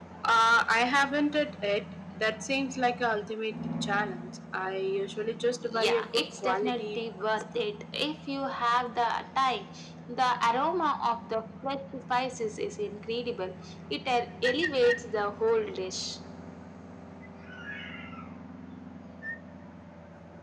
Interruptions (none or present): present